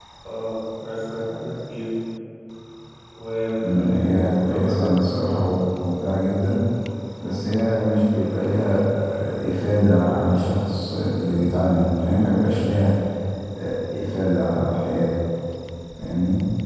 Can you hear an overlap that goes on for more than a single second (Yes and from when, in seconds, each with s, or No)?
Yes, from 3.6 s